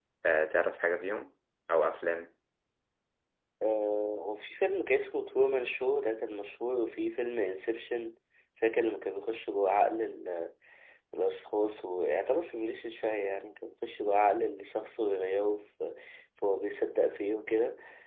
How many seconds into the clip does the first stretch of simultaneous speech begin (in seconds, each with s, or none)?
none